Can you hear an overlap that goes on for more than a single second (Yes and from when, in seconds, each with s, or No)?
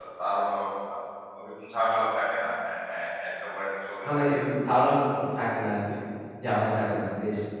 No